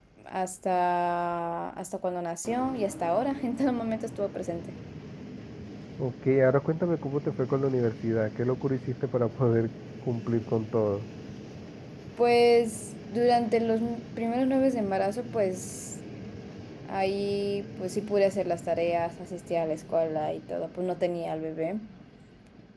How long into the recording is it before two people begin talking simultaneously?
none

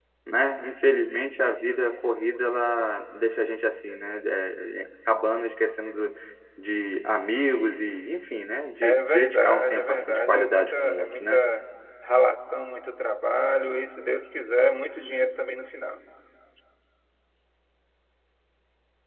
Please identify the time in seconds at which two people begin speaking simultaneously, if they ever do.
8.8 s

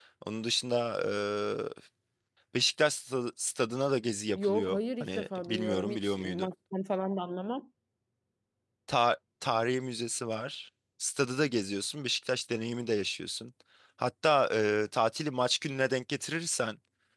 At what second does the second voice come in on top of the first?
4.3 s

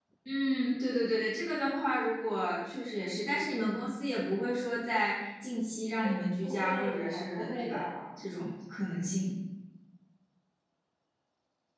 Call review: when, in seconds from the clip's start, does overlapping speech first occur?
6.0 s

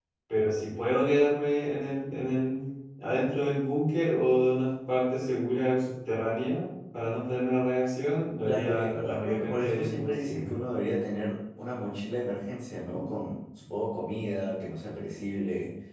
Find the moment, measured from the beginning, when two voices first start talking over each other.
8.4 s

